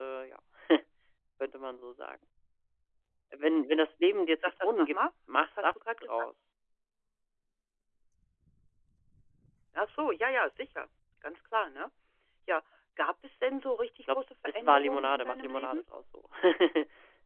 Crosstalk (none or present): present